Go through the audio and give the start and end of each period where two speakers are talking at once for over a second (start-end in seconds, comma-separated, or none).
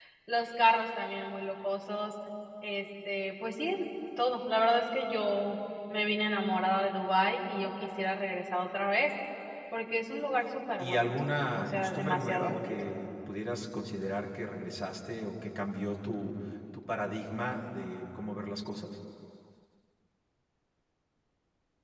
10.8-12.7